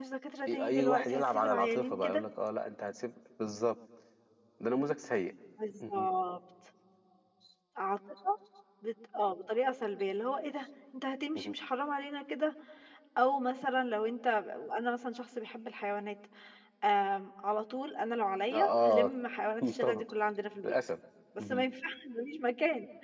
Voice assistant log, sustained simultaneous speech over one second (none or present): present